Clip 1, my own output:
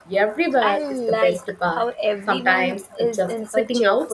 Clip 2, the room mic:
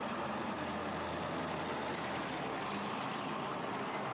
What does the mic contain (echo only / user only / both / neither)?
neither